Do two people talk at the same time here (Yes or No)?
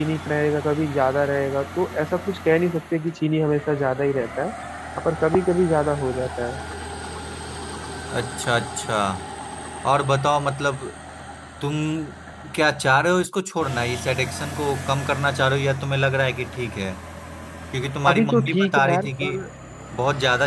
Yes